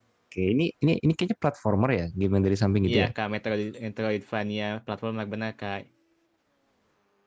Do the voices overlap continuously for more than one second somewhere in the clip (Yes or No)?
No